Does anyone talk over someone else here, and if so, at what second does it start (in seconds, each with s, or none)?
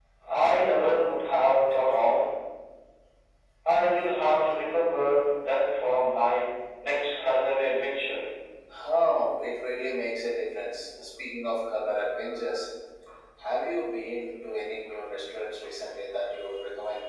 none